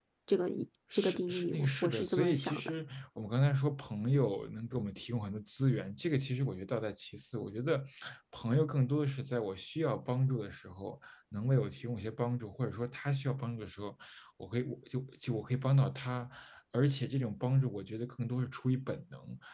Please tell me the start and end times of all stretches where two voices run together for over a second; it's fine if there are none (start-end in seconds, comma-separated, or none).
0.9-2.7